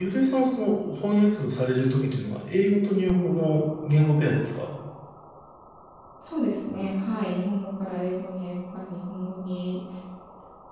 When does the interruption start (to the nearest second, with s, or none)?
none